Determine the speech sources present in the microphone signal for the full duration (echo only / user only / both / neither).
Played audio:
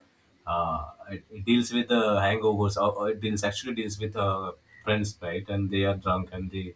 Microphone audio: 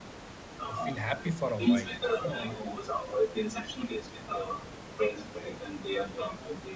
both